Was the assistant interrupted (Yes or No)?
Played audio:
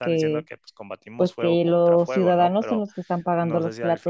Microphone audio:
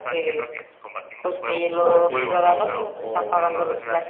Yes